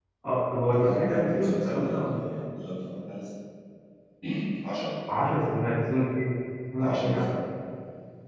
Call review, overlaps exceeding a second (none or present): present